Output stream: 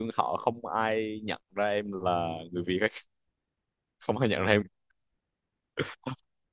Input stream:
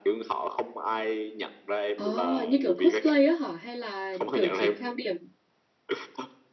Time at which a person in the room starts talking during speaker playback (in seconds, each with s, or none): 1.9 s